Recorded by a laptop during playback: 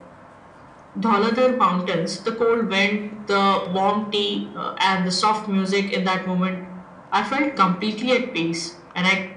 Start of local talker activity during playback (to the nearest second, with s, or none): none